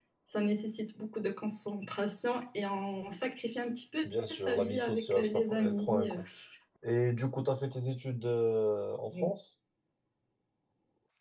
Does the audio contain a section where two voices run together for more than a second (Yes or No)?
Yes